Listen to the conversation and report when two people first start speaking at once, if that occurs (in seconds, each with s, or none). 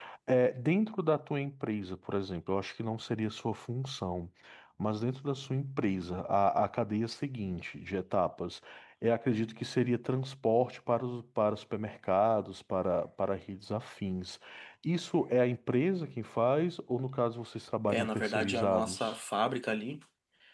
17.9 s